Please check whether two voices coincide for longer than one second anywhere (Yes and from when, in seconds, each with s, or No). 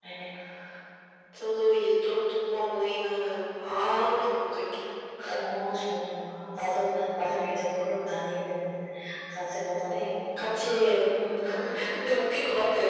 No